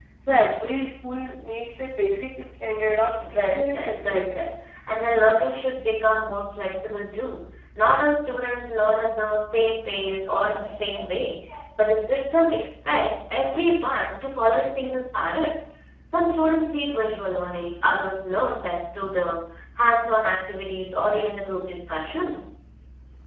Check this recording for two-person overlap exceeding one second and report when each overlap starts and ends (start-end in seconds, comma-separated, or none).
3.3-4.5